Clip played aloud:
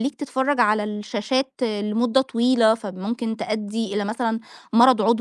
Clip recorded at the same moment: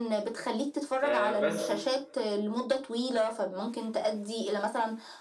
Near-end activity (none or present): present